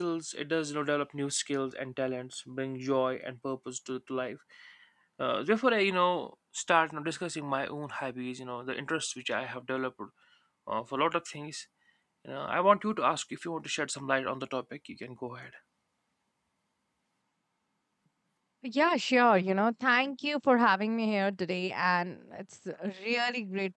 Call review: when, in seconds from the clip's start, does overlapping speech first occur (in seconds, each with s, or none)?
none